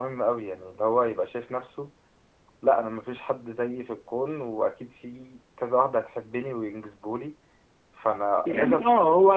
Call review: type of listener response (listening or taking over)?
taking over